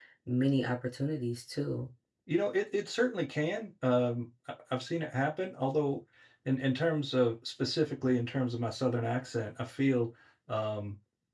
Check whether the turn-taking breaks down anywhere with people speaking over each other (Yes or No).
No